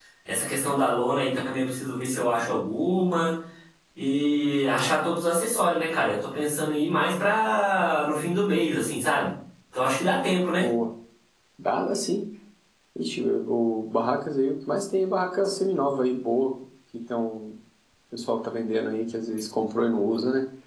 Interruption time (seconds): none

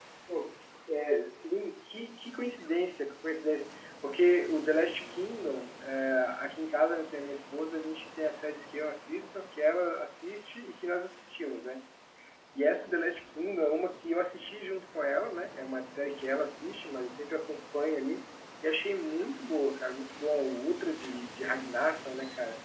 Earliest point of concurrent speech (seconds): none

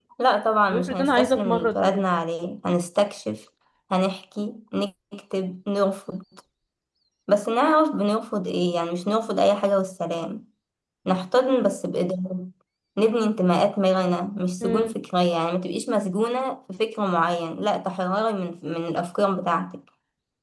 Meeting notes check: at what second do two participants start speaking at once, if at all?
1 s

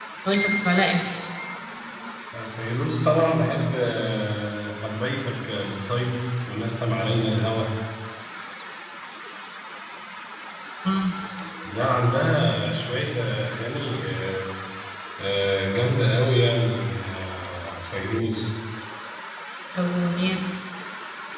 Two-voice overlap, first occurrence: none

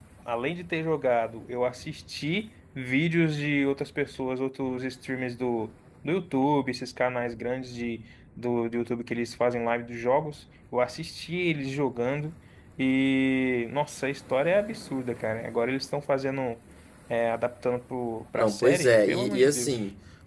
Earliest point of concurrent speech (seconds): 18 s

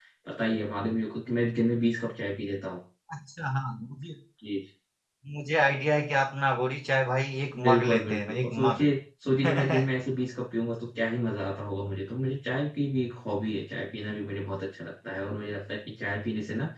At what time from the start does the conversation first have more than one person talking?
8 s

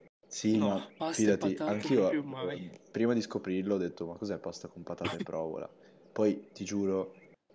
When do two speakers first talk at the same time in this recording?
1 s

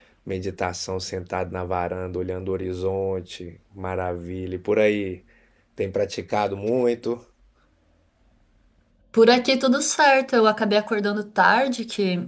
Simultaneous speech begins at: none

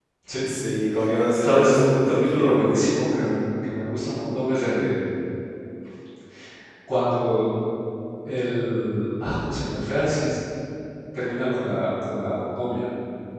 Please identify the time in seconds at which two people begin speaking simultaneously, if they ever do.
1 s

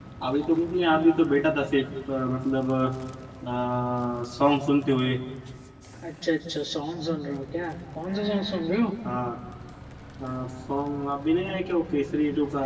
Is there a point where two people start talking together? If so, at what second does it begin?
none

